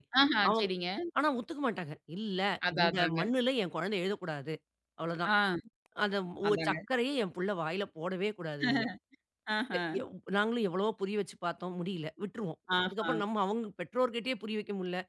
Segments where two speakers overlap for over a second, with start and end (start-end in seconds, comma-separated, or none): none